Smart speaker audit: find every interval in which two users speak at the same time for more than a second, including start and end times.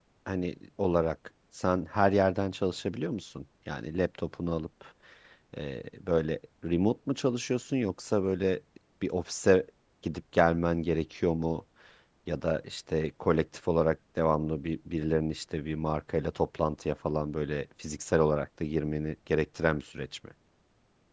none

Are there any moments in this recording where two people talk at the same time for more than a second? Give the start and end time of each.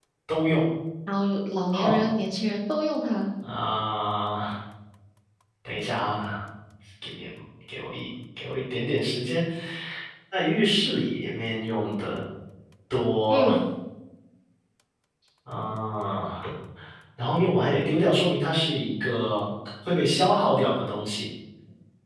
none

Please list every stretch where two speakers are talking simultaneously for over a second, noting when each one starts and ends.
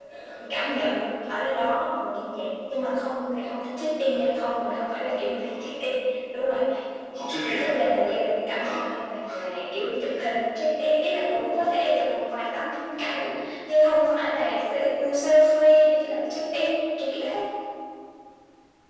none

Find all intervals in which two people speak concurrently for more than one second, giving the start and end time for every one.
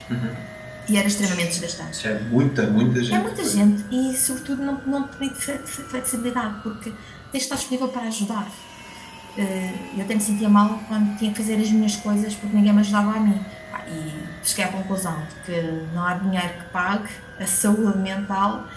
none

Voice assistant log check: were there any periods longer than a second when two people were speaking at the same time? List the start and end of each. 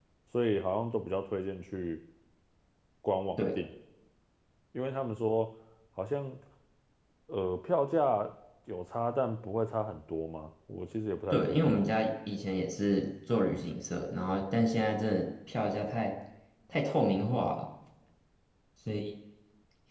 none

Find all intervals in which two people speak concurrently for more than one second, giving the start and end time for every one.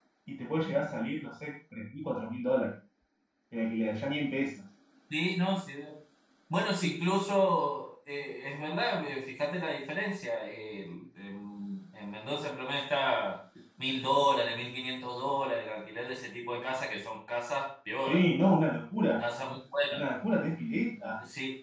none

